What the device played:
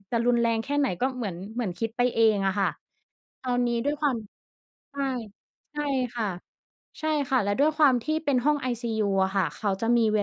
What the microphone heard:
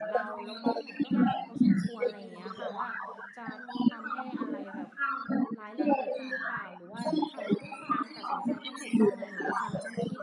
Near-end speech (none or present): present